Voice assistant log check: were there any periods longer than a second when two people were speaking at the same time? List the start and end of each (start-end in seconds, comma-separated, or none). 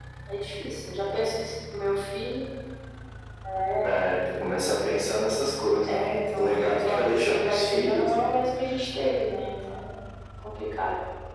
5.9-8.2